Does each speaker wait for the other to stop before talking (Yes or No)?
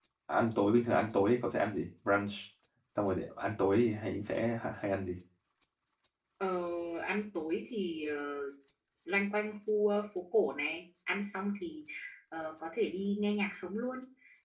Yes